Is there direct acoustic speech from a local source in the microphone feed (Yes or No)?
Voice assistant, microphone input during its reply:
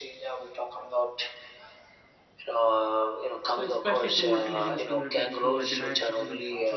Yes